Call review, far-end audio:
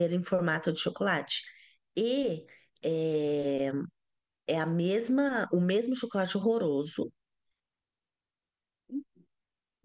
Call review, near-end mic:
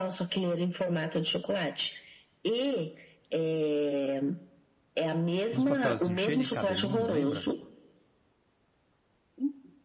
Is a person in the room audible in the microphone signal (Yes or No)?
Yes